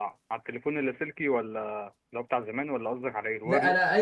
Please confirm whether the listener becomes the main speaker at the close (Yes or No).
Yes